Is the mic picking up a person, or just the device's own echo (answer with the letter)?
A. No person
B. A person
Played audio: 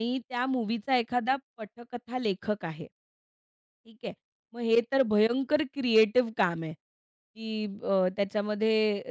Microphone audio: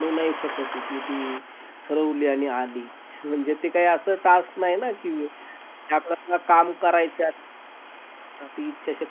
B